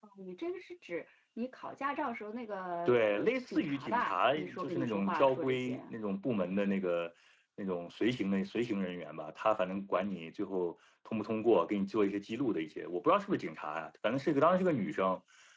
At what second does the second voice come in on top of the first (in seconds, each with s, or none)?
2.9 s